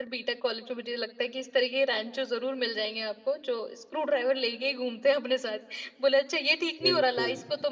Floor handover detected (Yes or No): No